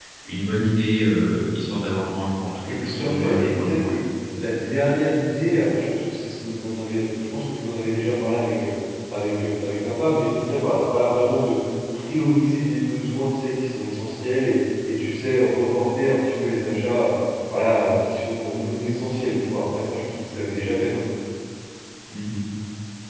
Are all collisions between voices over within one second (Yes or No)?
No